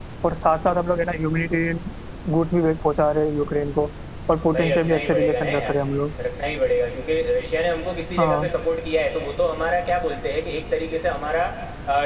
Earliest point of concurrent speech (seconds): 5 s

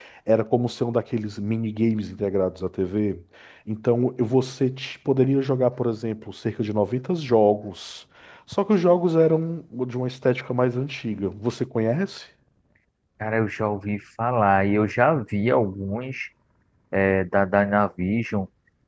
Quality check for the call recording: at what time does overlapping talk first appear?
none

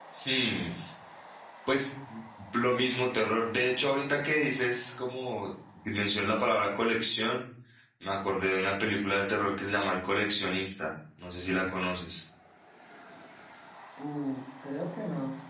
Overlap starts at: none

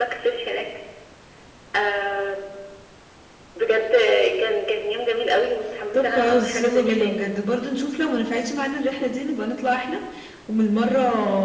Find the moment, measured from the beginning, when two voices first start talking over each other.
6 s

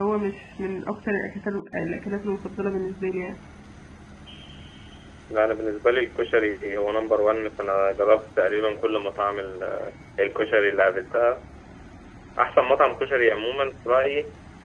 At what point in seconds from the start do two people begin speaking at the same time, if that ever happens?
none

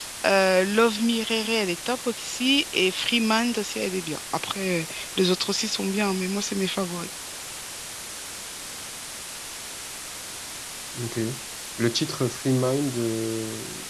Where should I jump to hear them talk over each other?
none

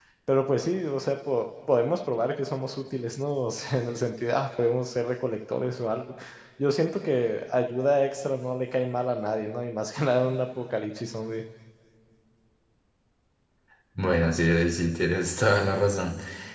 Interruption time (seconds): none

